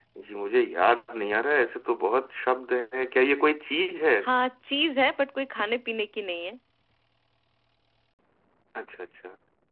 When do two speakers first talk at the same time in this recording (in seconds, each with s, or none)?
none